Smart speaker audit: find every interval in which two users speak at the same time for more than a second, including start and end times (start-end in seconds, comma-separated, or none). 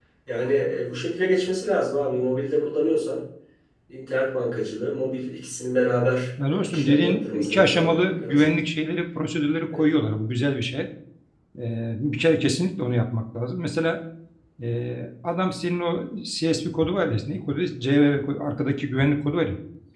6.5-8.5